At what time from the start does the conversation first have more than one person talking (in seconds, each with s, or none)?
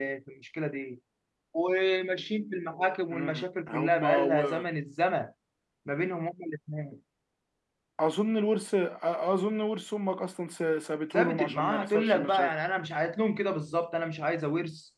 3.1 s